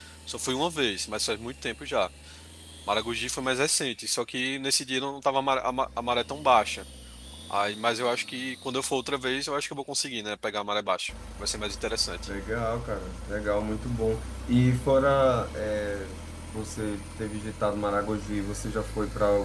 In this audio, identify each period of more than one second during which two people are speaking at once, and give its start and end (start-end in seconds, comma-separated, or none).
none